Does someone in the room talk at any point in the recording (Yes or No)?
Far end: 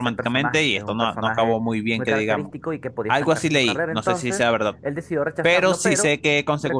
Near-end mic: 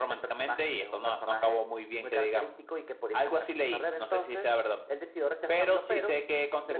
No